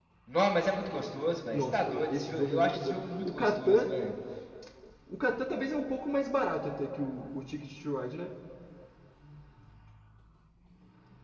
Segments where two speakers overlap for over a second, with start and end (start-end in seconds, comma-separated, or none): 1.5-3.9